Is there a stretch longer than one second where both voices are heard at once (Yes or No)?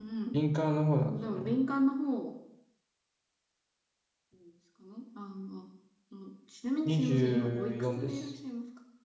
Yes